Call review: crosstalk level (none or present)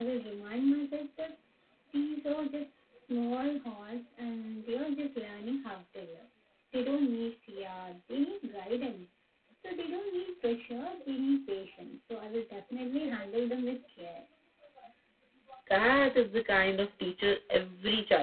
none